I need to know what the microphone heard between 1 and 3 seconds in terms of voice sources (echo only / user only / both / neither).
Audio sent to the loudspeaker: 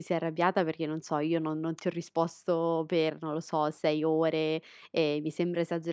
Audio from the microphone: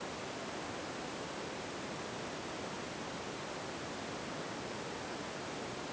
neither